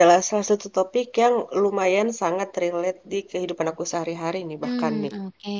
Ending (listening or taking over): taking over